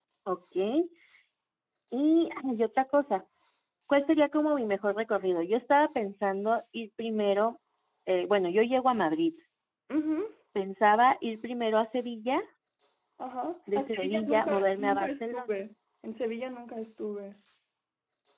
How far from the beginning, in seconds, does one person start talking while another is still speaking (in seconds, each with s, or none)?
13.8 s